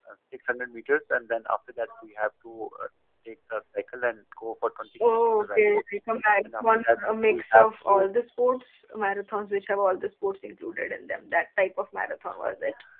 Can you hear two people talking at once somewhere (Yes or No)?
Yes